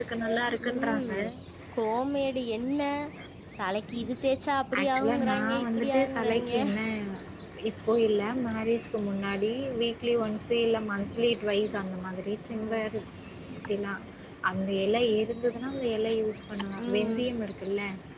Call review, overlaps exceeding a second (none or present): present